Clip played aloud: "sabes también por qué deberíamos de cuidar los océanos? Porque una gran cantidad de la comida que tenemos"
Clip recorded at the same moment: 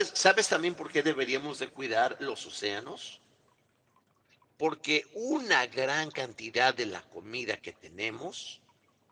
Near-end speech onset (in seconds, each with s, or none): none